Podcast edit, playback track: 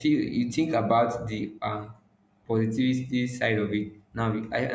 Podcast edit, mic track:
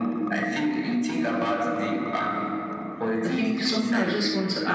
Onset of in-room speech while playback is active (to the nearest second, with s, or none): 3 s